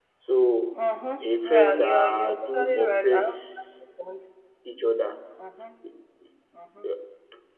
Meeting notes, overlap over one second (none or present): present